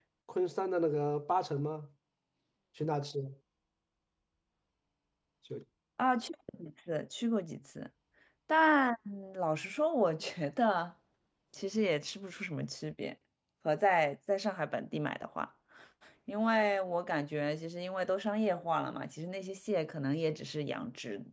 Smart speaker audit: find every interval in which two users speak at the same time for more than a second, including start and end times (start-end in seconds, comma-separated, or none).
none